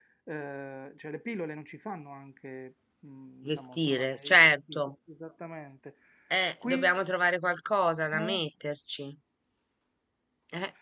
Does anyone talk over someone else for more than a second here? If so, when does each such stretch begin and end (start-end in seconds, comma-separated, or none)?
3.4-4.8